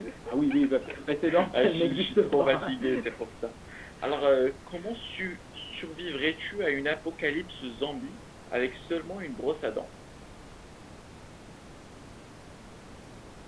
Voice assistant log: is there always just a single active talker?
No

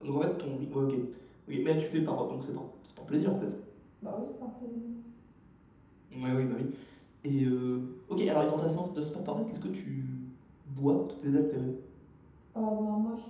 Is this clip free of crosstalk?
Yes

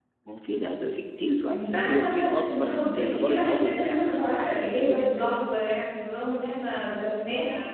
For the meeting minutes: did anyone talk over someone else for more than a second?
Yes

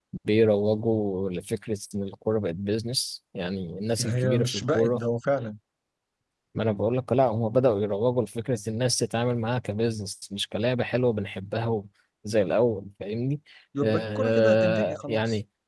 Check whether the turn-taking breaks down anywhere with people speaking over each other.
Yes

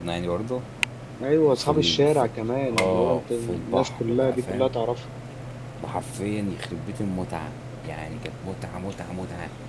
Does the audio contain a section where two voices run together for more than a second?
Yes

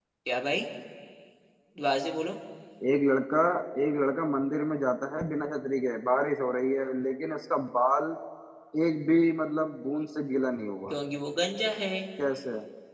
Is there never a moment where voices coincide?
Yes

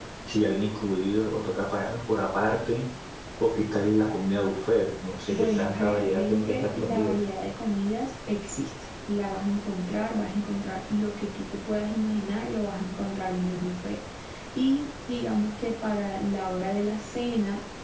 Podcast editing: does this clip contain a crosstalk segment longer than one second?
Yes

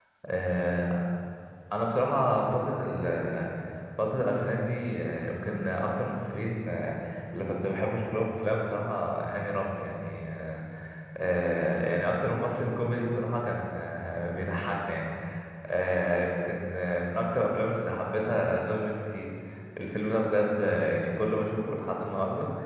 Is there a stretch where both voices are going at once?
No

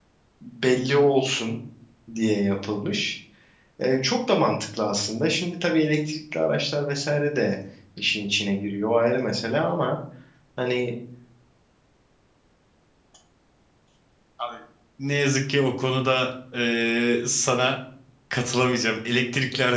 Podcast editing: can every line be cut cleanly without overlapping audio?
Yes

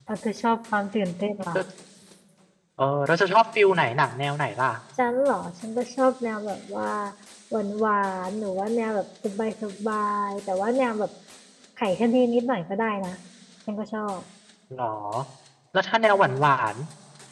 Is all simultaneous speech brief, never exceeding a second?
Yes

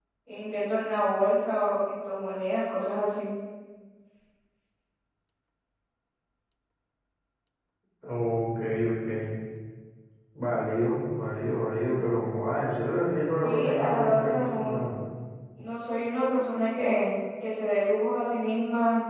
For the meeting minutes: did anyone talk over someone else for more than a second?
Yes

